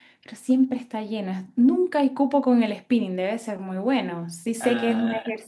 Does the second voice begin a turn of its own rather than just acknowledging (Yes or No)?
No